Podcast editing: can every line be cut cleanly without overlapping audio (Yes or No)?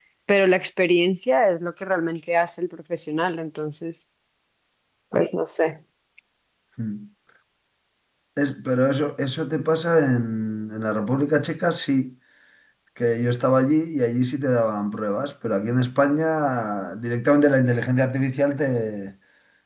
Yes